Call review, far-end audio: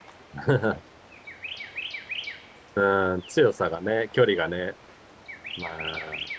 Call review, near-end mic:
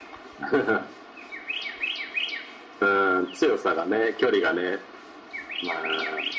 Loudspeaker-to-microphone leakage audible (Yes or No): Yes